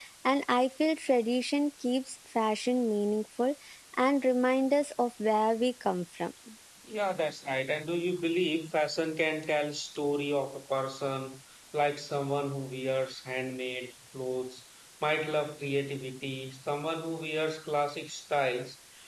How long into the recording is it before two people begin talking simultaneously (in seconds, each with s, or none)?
none